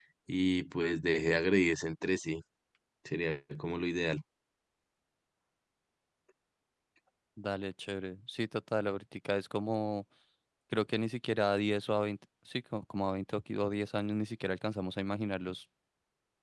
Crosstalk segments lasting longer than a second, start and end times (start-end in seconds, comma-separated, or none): none